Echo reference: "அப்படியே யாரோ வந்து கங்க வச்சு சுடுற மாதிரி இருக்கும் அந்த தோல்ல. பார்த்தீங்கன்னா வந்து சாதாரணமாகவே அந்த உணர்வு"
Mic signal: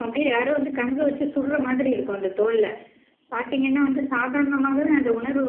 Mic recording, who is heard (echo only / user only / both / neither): echo only